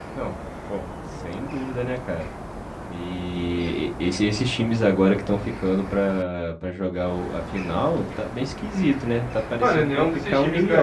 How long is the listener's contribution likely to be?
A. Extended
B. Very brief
A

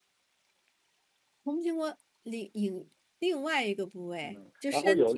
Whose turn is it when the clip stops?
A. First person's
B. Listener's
B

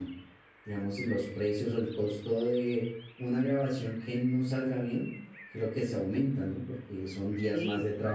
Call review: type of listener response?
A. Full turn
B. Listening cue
B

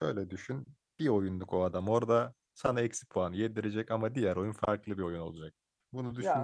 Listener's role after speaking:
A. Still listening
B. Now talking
A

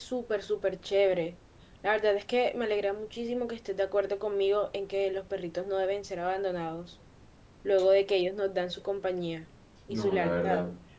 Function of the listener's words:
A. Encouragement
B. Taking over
B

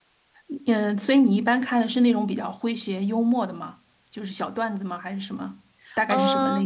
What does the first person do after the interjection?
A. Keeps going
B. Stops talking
B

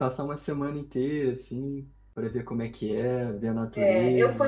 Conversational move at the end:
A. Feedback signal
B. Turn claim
B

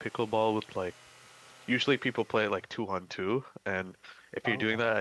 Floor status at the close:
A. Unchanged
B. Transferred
A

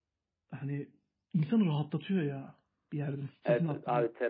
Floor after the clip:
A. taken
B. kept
A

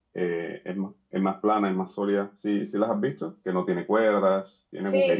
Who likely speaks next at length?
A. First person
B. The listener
B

